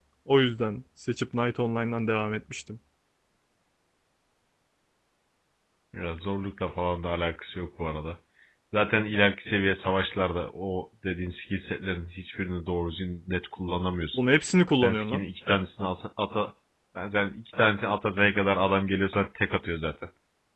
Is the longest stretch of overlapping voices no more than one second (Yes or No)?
Yes